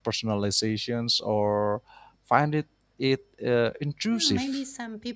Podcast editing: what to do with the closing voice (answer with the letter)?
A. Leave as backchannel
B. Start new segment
B